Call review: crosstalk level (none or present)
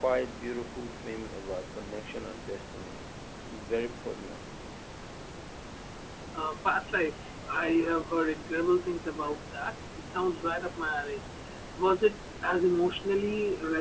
none